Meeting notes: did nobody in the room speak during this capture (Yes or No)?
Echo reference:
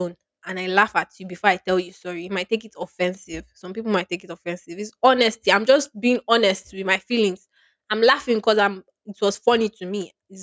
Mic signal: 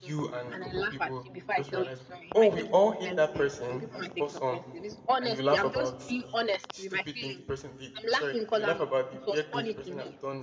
No